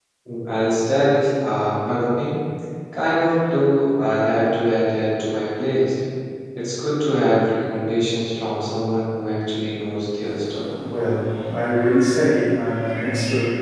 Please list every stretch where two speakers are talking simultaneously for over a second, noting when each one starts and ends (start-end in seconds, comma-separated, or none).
none